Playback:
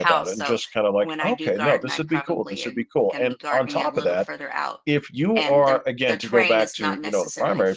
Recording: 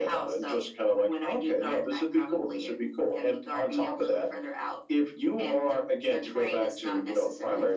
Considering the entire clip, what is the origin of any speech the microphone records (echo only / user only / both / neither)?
echo only